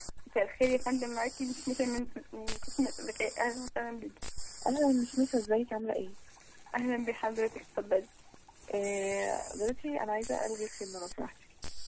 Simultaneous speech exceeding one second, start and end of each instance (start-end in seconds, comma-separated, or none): none